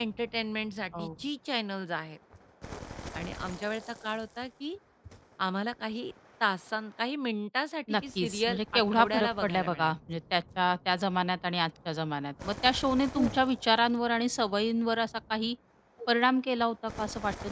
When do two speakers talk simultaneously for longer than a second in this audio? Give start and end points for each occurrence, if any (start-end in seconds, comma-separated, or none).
7.9-9.9